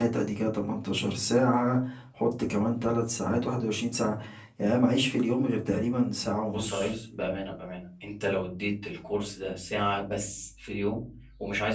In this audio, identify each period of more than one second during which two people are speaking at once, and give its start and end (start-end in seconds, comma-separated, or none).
none